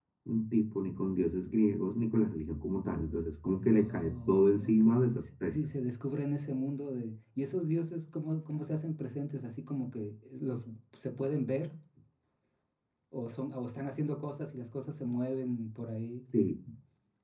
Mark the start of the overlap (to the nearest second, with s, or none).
4 s